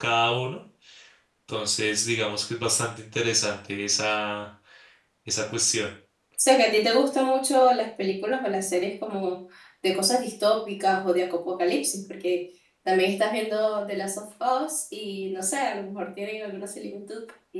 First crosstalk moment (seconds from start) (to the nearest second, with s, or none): none